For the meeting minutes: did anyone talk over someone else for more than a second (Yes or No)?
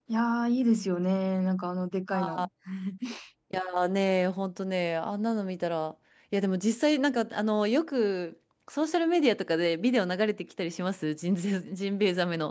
No